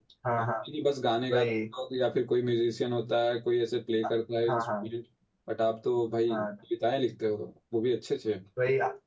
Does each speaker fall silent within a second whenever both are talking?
Yes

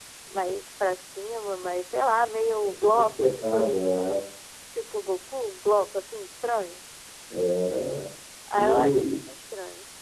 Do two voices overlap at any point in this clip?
Yes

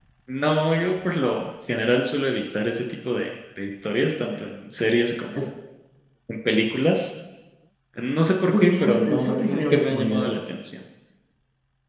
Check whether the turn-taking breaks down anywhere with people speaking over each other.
Yes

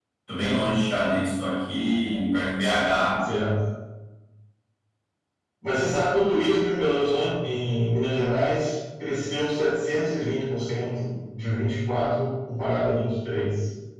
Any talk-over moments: No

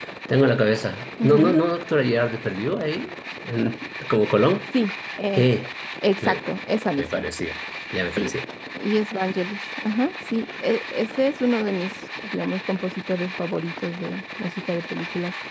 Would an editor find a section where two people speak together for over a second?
No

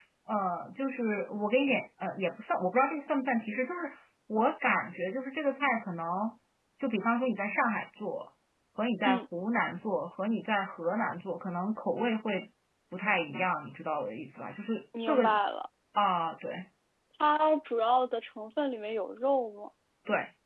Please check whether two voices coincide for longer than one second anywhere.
No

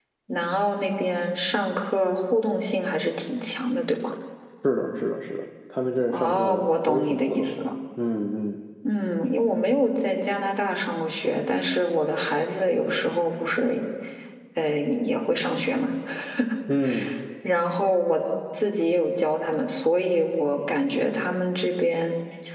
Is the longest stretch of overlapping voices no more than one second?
No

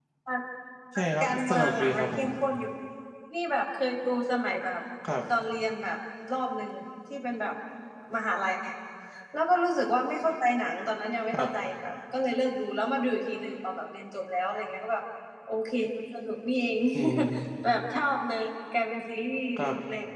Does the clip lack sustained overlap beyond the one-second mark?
No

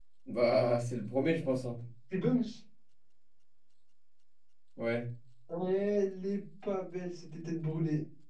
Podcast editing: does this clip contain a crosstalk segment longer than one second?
No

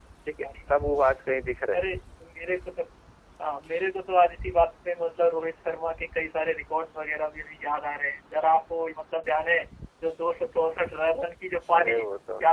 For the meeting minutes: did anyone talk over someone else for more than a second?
No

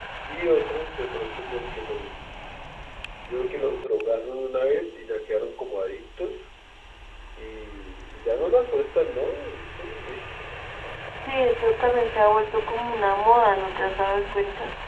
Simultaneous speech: No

